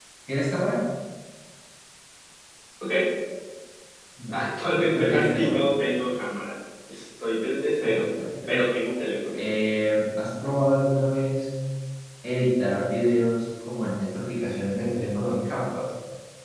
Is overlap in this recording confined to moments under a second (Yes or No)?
No